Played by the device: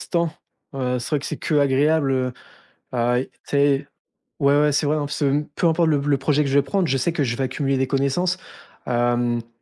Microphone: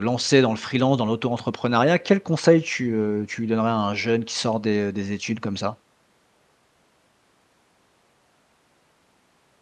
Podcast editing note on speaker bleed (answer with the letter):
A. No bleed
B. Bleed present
A